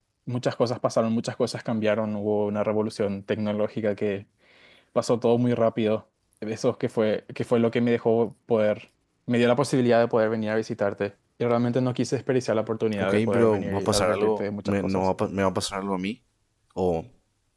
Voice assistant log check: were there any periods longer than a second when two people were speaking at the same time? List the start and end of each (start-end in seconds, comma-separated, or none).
13.0-15.0